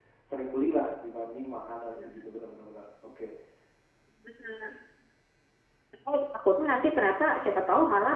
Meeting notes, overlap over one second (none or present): none